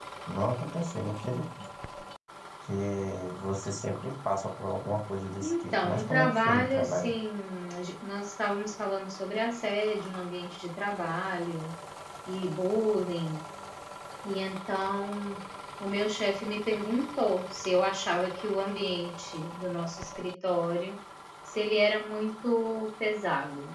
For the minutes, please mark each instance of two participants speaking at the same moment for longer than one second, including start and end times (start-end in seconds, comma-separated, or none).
5.4-7.1